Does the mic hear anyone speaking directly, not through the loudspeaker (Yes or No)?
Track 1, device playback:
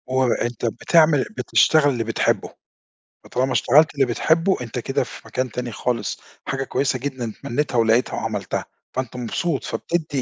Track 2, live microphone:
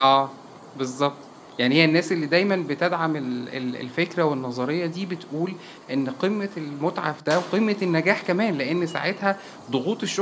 Yes